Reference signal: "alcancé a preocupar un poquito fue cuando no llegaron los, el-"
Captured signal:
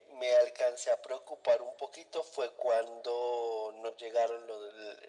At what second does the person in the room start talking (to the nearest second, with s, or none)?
none